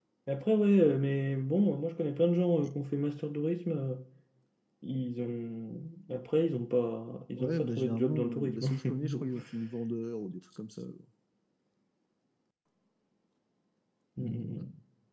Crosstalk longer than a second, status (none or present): present